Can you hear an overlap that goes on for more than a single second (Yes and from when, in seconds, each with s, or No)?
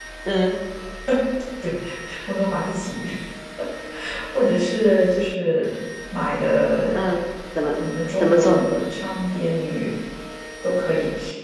No